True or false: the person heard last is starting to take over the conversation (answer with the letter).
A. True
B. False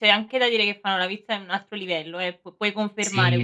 A